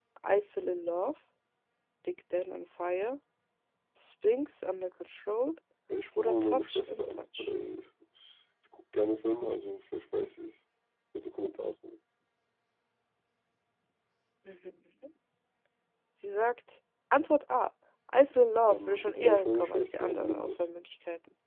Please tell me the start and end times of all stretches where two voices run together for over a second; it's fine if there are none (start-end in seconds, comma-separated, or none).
6.2-7.5, 18.7-20.6